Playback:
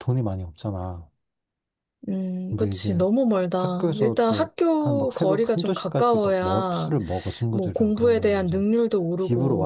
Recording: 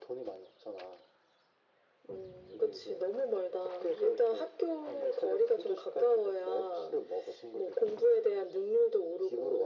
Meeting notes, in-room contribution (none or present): none